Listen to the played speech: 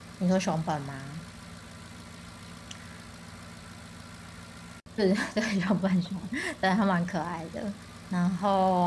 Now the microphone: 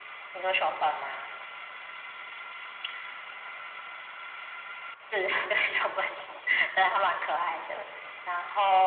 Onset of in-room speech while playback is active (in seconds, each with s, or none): none